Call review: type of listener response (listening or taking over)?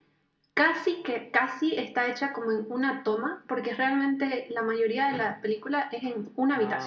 listening